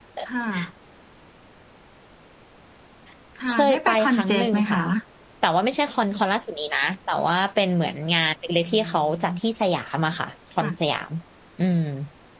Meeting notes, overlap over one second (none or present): present